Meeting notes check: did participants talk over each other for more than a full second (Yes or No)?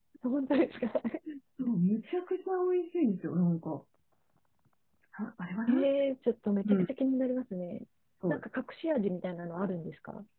No